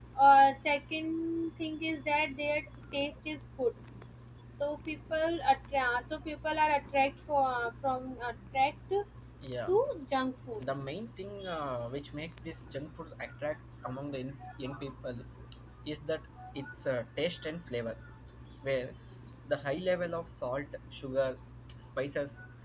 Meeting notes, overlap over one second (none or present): none